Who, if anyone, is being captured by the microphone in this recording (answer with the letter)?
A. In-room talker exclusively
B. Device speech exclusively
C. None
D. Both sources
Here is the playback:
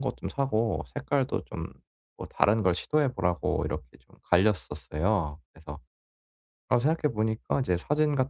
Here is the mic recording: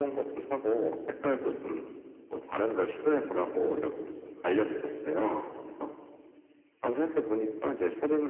B